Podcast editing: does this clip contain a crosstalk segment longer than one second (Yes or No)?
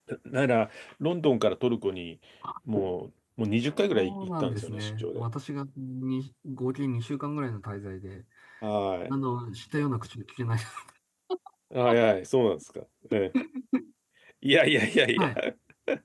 Yes